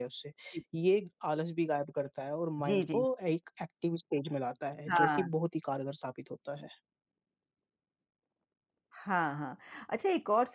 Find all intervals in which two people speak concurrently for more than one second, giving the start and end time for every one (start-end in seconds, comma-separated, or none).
none